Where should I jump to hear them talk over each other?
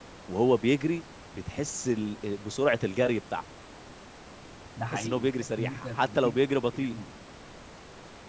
4.9 s

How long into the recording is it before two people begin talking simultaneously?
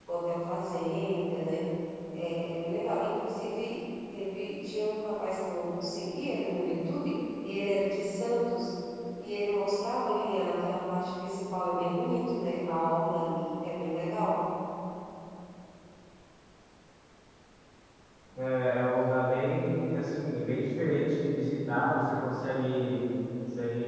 none

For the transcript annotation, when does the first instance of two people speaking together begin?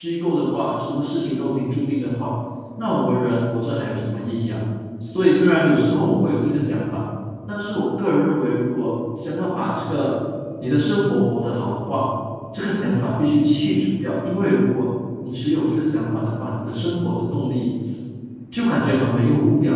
none

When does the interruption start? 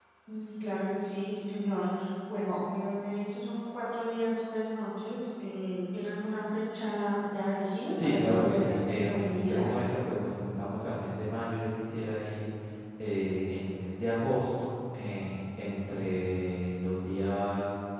7.9 s

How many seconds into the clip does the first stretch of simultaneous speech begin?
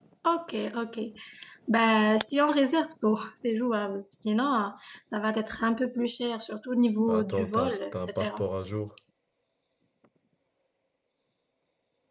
7.1 s

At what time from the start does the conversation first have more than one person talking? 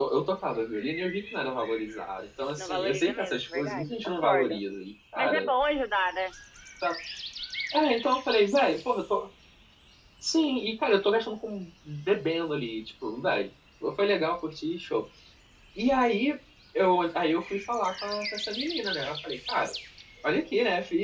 2.6 s

